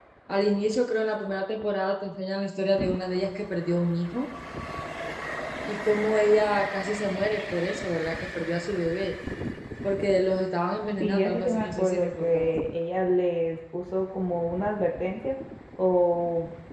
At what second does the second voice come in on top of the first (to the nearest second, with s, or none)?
11 s